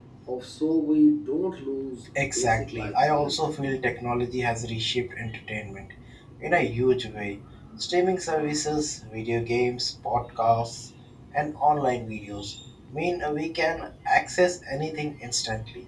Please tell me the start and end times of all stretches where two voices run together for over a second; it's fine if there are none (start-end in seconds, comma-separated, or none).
2.2-3.5